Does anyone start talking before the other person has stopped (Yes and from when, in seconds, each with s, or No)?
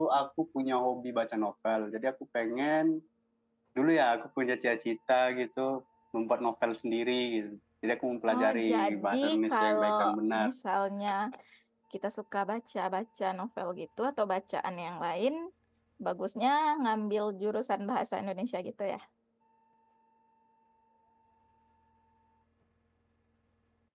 Yes, from 8.3 s